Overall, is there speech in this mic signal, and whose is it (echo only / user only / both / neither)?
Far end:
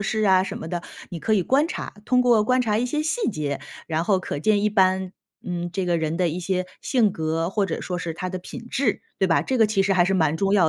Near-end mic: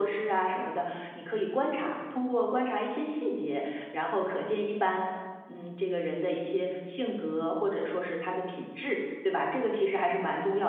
echo only